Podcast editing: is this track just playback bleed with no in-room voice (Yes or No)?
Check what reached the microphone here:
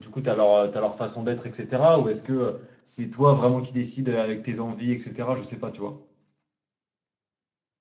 No